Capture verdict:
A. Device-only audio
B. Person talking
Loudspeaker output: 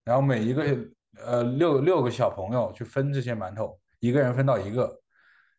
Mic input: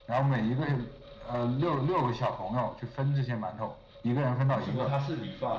B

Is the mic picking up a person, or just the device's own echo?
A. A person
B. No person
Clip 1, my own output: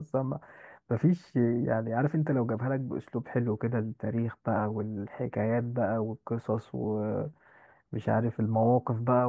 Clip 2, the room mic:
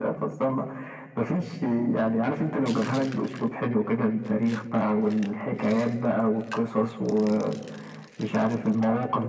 B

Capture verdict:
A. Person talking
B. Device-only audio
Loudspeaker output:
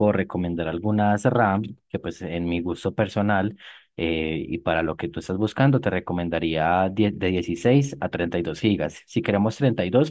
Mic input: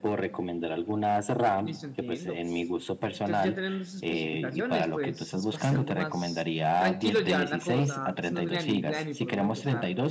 A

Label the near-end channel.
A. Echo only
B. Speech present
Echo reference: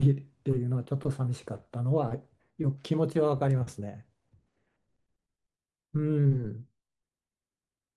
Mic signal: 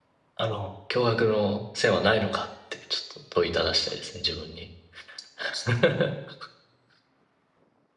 B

